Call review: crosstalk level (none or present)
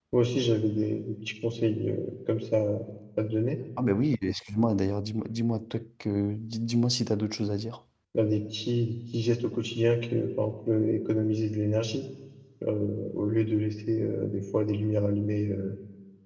none